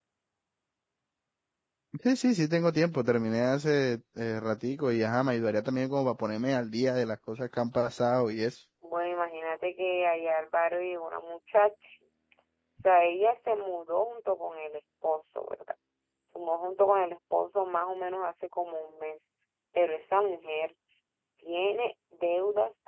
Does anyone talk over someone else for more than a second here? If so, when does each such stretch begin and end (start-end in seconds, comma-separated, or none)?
none